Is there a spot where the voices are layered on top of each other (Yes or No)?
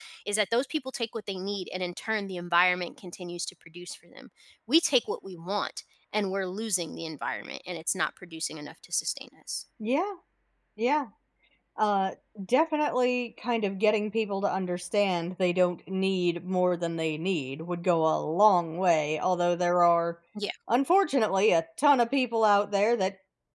No